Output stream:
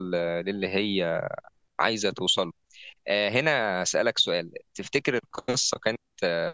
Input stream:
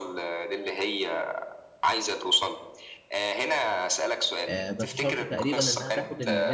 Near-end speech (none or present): present